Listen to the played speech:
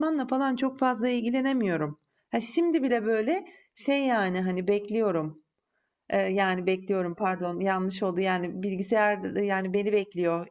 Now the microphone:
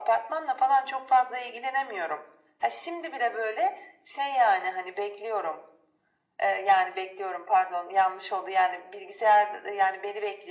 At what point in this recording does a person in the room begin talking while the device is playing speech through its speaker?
none

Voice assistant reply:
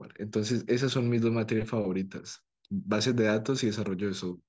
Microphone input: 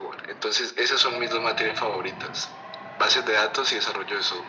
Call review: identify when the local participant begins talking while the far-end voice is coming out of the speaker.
none

